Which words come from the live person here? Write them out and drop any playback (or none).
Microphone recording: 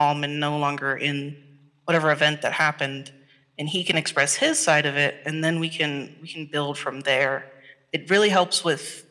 none